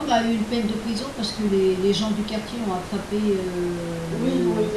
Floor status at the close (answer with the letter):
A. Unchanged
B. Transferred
B